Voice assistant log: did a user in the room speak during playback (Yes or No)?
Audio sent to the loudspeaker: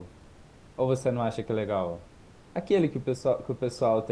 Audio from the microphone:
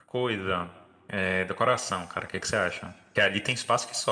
Yes